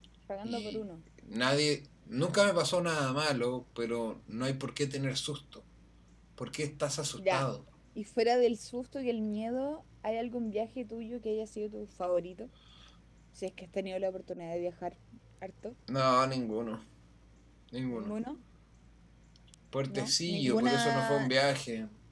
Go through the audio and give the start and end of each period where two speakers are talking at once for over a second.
19.9-21.3

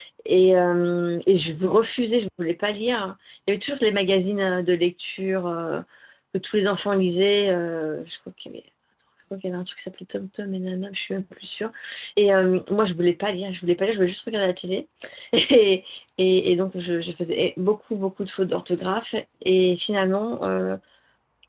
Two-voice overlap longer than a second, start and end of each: none

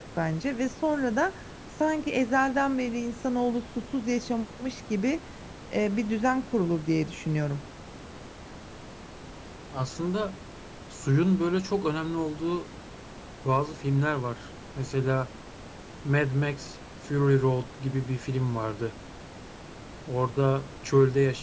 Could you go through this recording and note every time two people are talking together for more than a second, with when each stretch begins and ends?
none

